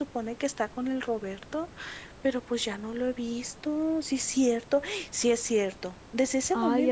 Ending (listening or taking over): listening